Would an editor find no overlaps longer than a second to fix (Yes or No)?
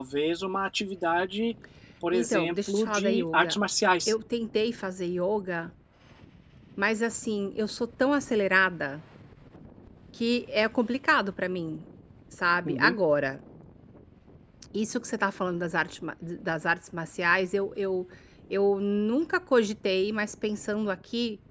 No